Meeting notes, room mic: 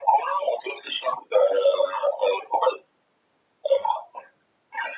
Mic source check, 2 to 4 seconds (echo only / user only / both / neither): echo only